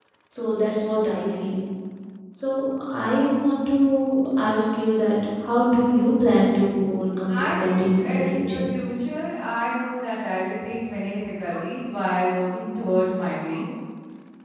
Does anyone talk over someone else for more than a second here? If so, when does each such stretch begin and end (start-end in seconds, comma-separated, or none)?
7.3-8.6